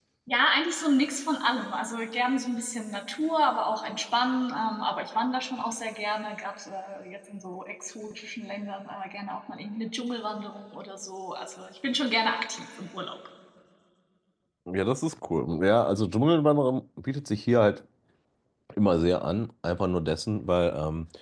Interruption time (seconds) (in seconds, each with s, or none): none